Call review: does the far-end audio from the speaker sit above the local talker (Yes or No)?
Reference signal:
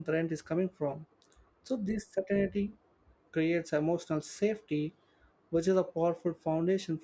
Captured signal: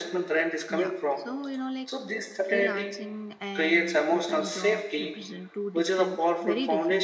Yes